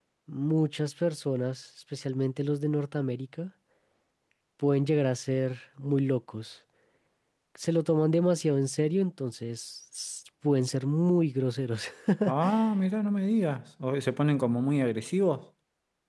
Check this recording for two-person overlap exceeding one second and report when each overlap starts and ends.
none

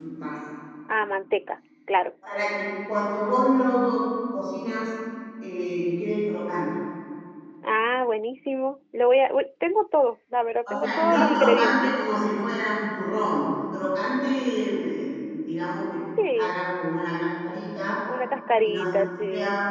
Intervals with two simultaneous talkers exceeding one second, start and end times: 10.7-11.9

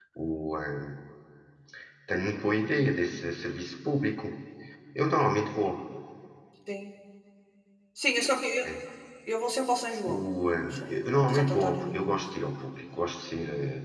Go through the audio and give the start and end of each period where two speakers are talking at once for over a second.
10.1-12.2

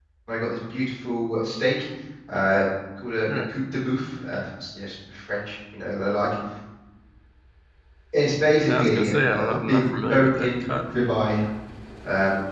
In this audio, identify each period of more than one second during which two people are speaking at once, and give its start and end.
8.7-10.8

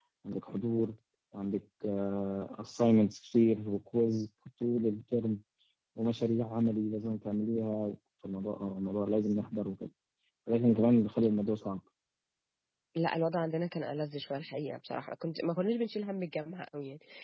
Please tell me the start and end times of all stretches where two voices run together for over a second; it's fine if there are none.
none

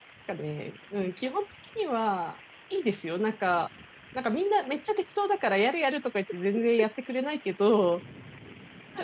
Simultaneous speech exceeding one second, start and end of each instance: none

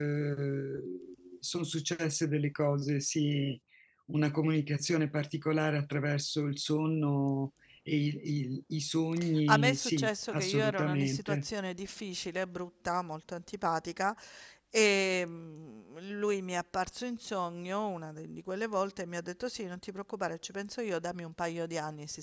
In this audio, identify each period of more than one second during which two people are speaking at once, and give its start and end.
9.5-11.4

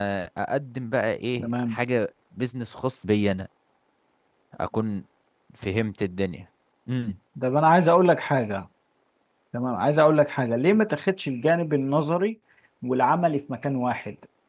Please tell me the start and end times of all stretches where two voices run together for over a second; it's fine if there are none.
none

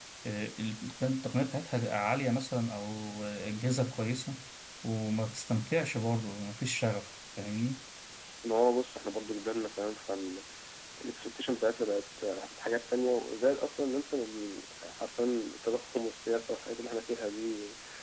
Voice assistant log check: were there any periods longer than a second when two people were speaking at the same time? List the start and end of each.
none

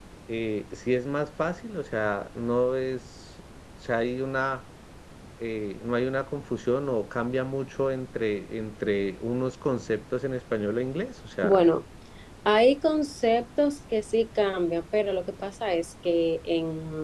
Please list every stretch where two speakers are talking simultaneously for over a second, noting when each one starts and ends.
none

